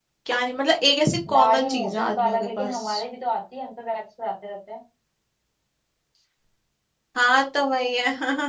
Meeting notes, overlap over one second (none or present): present